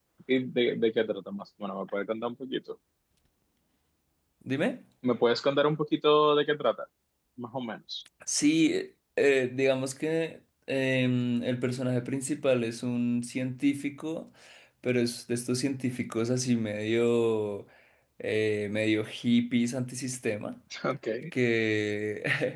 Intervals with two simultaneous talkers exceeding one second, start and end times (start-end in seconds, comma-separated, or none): none